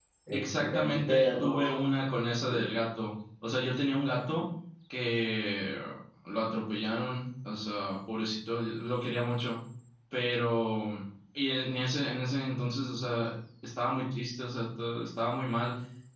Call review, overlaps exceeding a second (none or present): present